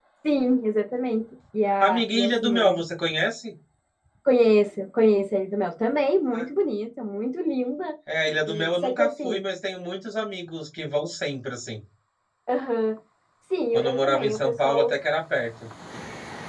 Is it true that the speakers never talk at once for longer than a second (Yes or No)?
No